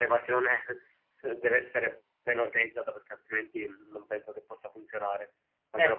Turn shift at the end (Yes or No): No